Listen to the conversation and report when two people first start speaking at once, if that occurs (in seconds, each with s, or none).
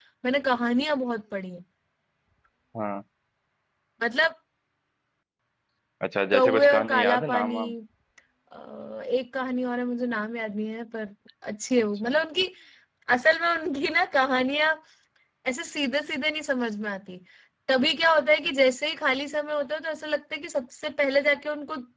6.3 s